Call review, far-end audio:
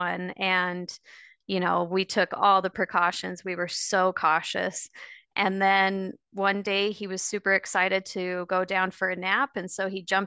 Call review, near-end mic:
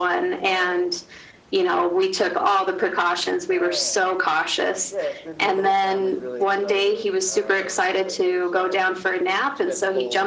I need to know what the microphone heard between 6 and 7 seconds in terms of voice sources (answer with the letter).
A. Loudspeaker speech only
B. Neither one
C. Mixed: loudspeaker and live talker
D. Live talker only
C